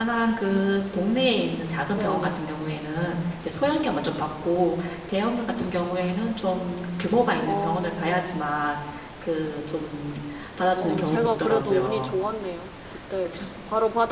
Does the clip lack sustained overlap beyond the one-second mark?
No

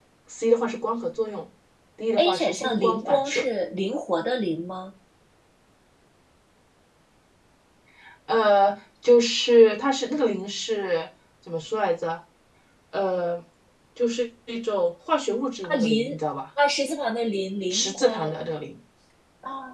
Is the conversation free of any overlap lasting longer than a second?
No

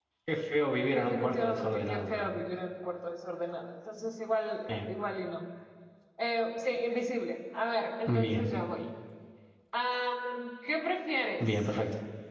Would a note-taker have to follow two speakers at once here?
Yes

